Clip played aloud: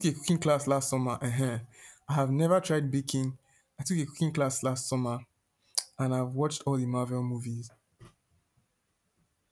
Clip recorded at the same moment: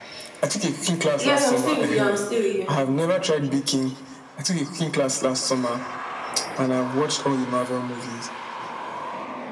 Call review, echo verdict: present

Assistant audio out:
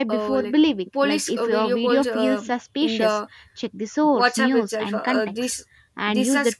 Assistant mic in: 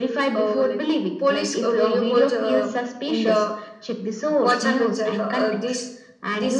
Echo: present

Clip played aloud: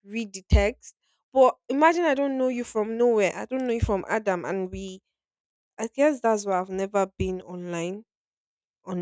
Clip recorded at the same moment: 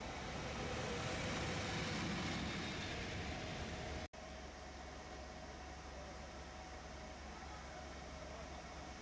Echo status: none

